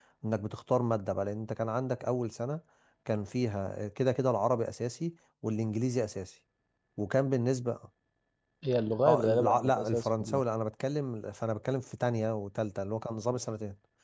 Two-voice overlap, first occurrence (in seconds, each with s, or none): 9.1 s